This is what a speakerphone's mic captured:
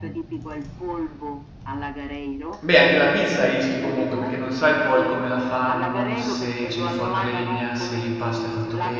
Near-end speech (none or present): present